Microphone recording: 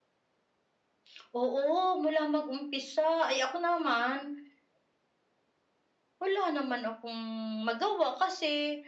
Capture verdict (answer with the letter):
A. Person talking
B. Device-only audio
B